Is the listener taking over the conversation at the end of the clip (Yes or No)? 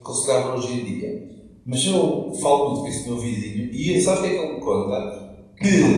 No